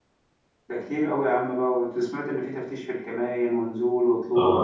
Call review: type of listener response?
taking over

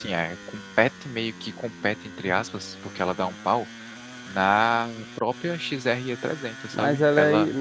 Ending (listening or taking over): taking over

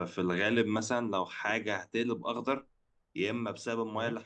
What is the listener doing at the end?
listening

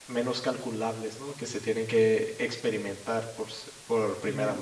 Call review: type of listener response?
taking over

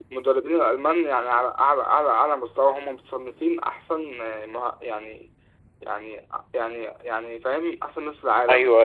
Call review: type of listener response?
taking over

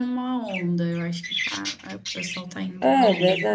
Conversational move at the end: taking over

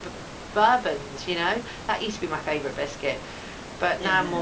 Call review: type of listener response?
taking over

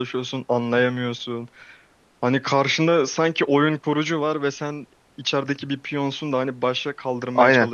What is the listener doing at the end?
taking over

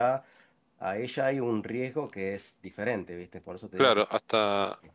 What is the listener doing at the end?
taking over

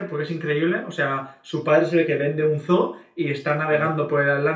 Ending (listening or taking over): listening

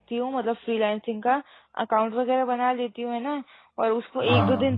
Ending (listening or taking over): listening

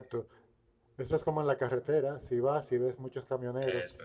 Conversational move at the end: listening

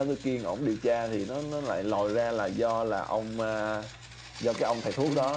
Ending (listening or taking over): listening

